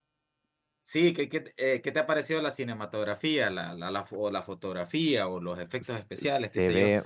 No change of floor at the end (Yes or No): No